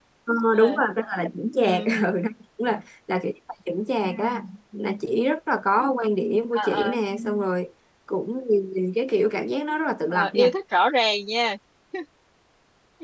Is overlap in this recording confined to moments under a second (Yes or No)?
Yes